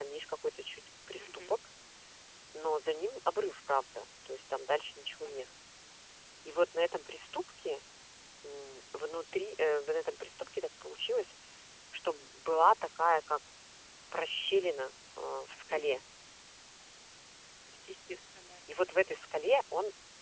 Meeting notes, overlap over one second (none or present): none